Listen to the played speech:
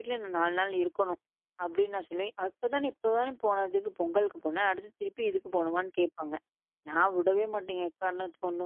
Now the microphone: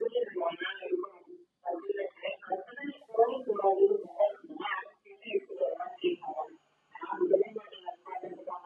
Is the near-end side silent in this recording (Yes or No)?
Yes